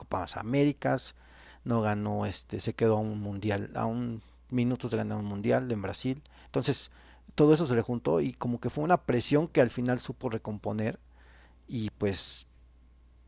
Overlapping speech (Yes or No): No